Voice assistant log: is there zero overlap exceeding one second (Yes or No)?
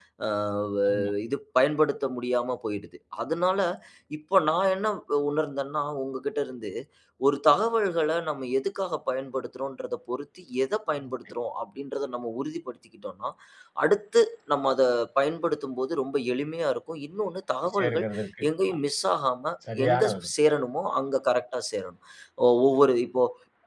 Yes